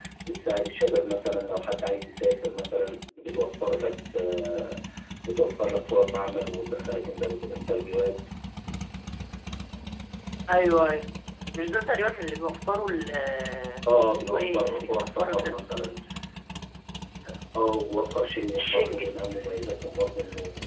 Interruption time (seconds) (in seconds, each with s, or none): 14.1 s